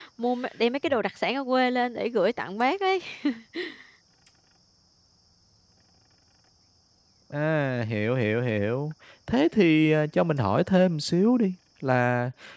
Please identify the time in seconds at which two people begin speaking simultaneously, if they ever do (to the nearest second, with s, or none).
none